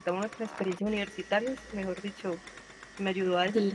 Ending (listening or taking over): taking over